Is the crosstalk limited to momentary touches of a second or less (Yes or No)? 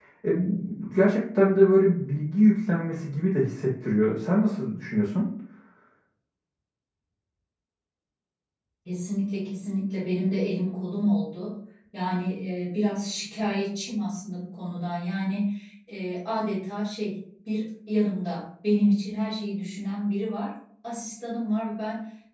Yes